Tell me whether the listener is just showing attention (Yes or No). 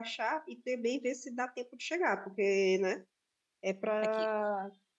Yes